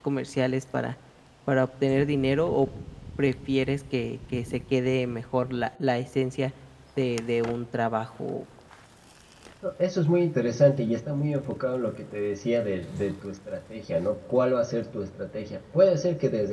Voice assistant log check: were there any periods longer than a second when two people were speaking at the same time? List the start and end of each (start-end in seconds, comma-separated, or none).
none